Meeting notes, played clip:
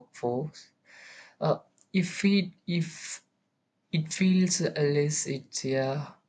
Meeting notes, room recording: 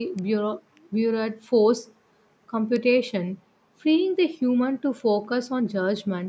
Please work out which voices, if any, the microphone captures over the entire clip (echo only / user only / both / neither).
user only